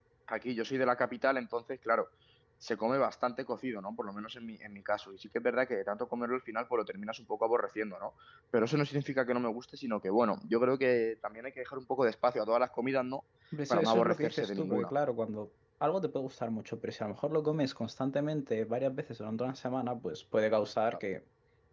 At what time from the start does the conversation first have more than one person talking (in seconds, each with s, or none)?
13.7 s